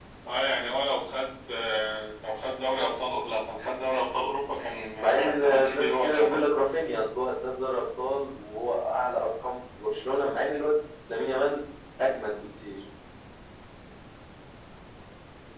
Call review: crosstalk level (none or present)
present